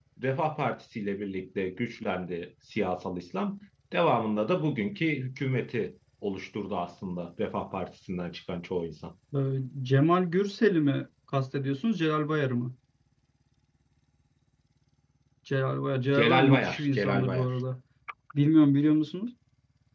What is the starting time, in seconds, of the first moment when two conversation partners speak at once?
16.2 s

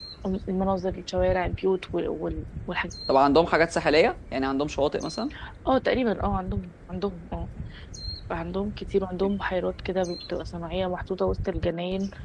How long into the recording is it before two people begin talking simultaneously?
none

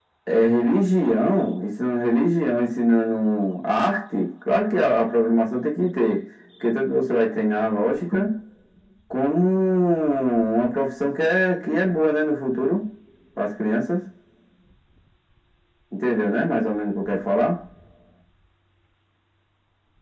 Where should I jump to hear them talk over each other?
none

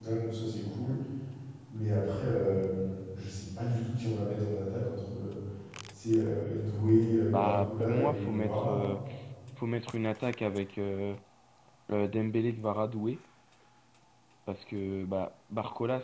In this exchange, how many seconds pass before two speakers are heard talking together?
7.3 s

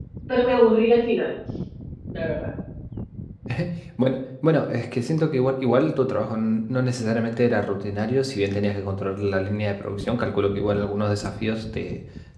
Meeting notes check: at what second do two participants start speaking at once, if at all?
none

